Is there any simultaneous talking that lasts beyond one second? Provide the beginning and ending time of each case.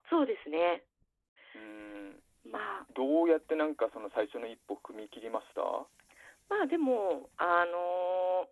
none

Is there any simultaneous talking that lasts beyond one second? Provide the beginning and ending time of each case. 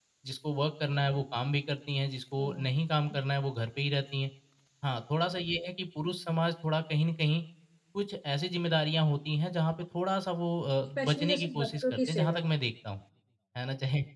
11.0-12.4

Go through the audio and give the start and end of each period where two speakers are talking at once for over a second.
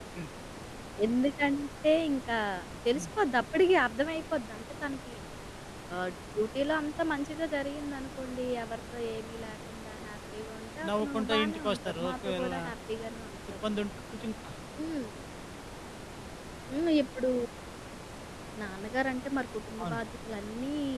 10.9-12.5

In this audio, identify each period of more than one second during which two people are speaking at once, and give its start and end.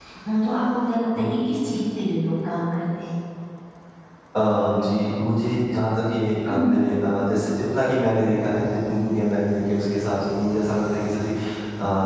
none

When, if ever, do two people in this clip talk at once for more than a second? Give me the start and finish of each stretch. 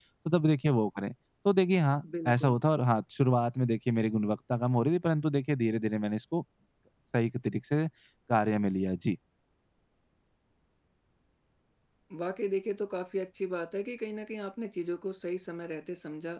none

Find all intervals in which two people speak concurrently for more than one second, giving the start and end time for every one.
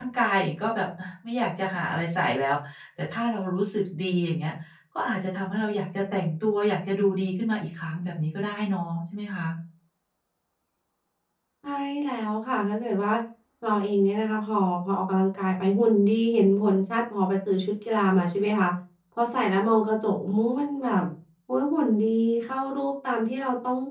none

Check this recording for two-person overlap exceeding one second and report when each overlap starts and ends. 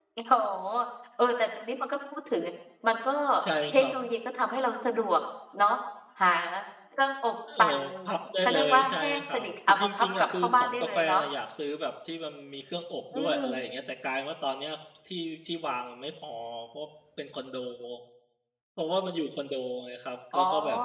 8.4-11.2

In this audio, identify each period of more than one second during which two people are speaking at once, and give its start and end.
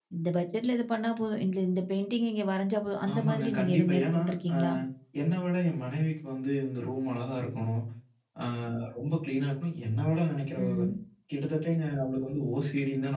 3.1-4.5

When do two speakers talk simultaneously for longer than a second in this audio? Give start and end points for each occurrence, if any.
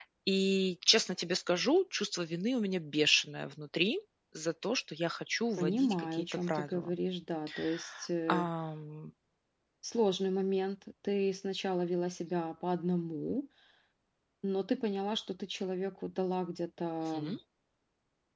5.6-7.0

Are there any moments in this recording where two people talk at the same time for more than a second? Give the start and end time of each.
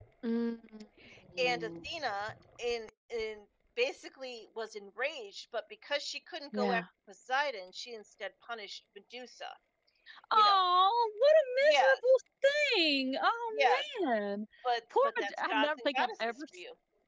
15.0-16.6

